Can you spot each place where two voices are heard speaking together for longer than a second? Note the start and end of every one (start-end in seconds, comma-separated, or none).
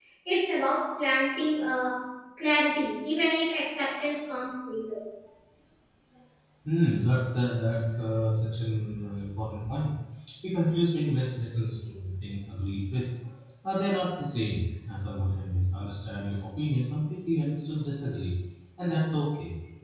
none